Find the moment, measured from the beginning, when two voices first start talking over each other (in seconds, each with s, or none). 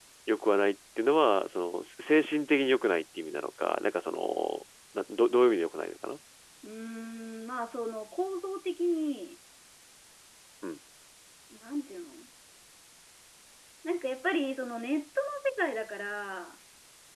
none